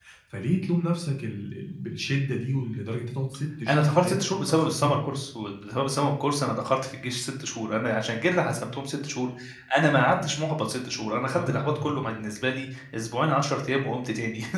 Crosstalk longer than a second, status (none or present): present